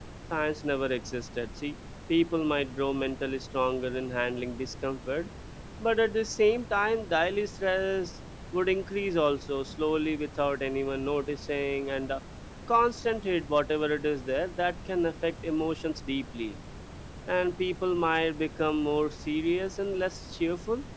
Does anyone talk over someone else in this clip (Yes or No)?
No